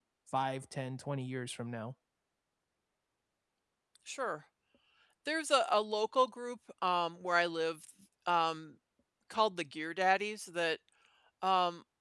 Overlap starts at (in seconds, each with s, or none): none